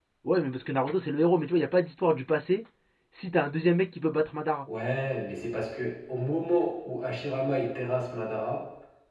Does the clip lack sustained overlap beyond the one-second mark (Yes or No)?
Yes